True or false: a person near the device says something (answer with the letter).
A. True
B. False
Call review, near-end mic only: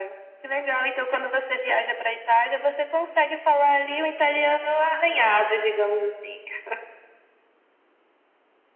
B